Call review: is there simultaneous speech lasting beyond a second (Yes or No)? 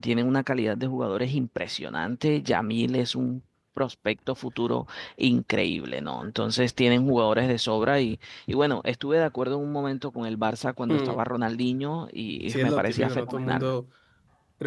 Yes